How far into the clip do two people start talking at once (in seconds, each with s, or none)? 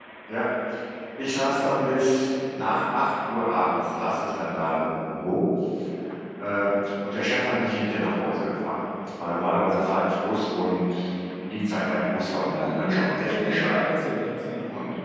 12.4 s